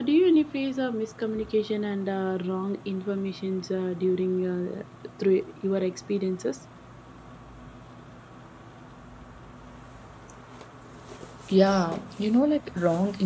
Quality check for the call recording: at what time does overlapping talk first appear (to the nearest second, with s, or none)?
none